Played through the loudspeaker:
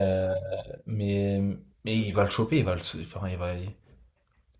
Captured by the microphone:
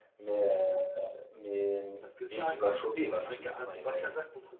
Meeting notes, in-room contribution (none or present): present